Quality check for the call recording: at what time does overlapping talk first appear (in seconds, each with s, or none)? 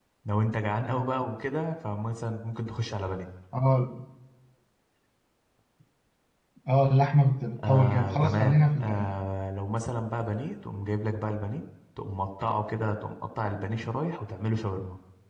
7.6 s